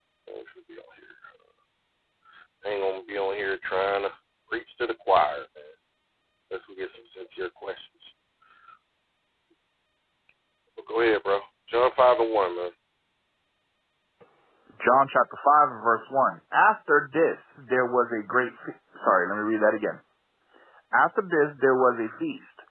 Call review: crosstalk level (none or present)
none